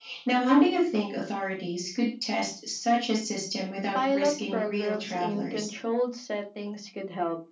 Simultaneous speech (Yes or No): Yes